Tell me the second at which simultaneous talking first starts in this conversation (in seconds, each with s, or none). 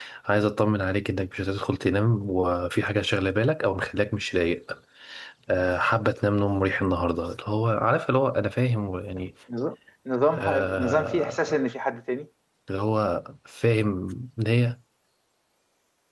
10.3 s